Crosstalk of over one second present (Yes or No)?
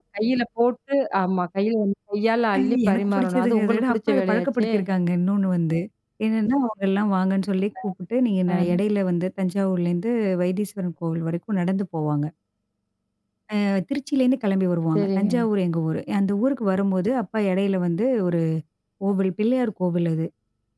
Yes